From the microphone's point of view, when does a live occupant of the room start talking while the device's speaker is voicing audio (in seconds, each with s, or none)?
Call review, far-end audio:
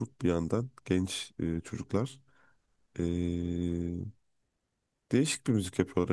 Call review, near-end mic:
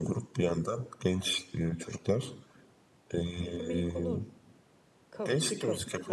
3.4 s